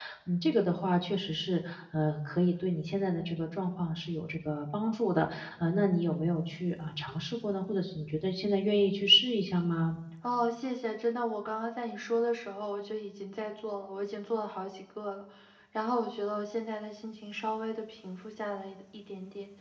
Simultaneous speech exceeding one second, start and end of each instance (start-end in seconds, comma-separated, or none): none